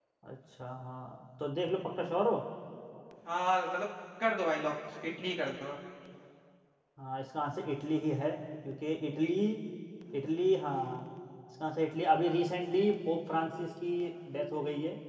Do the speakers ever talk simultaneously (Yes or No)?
No